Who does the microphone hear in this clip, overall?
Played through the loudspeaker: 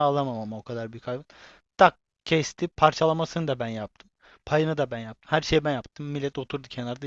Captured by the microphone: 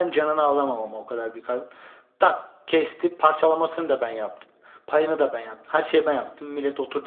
echo only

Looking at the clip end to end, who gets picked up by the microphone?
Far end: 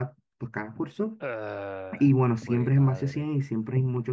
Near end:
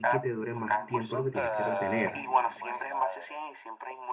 both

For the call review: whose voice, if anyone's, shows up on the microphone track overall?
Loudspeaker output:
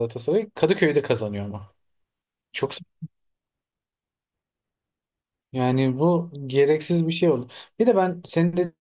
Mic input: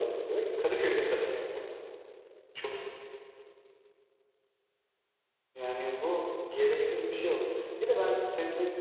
echo only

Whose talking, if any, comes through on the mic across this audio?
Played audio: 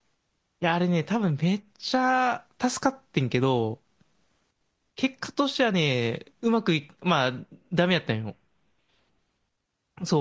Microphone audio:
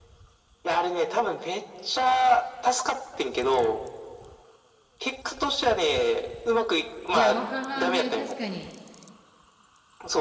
both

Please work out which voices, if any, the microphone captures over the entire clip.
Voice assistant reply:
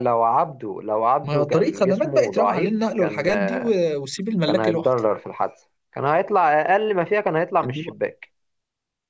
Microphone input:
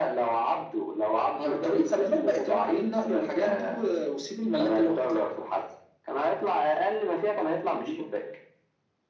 echo only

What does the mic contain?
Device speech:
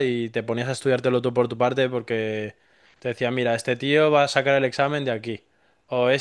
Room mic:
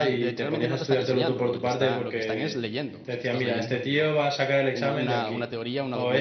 both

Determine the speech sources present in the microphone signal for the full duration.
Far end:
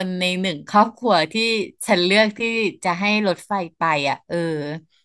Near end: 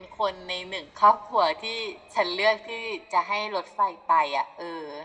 echo only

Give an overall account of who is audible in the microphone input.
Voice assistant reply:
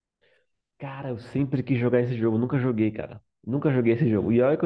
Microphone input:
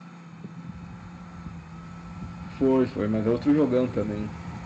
user only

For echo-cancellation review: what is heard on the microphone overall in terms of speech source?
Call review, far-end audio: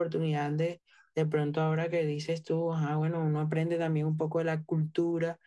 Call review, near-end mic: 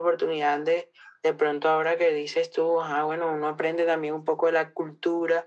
echo only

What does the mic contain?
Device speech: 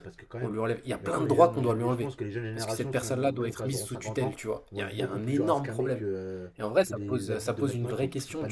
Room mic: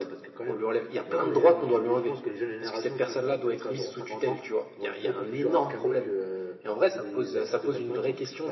echo only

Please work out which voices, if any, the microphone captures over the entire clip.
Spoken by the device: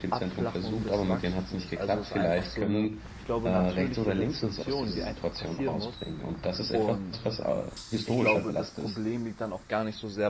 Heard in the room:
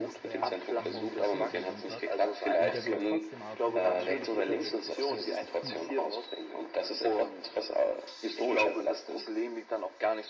both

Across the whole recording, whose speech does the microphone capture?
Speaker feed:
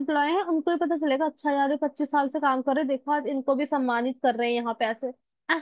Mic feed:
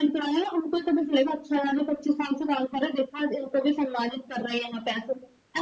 echo only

